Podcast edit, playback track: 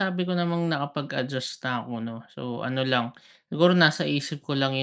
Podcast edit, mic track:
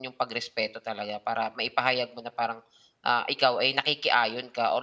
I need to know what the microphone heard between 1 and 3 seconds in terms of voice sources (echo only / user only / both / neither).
user only